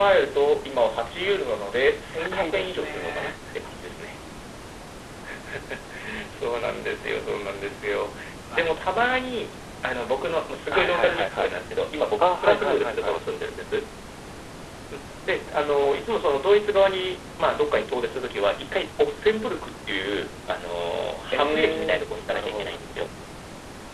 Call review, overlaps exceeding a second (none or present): present